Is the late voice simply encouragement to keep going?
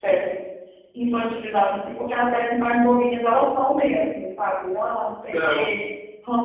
Yes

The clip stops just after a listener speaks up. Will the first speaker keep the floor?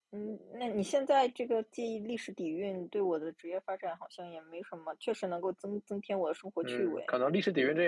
No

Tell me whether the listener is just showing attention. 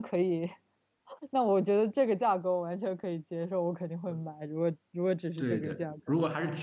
No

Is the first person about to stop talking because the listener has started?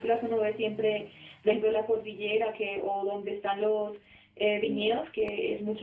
No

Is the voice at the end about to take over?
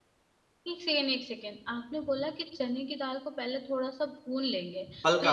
No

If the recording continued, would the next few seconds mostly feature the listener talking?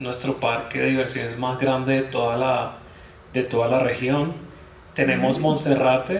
No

